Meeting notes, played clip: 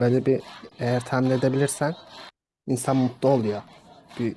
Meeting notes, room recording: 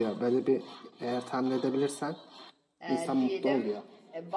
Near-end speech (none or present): present